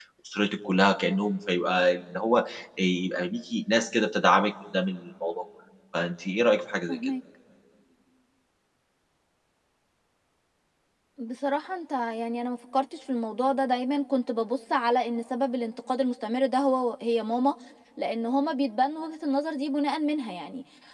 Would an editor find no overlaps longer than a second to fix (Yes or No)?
Yes